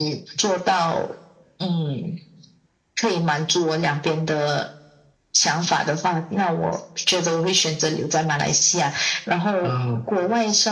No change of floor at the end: Yes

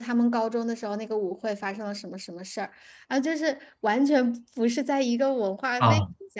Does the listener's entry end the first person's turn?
Yes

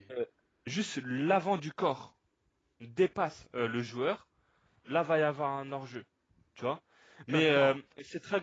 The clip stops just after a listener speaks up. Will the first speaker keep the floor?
Yes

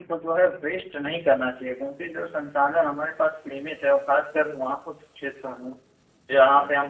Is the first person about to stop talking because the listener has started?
No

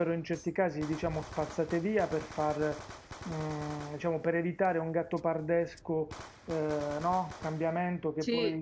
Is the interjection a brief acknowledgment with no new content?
Yes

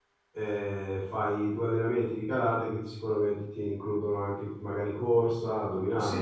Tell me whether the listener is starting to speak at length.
Yes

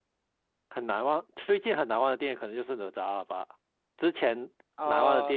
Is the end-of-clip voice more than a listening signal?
No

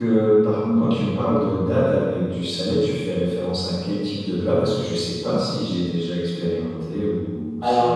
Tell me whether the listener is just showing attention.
No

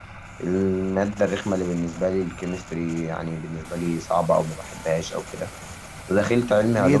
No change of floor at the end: Yes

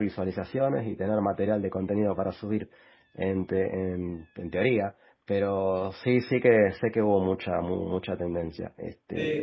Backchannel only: No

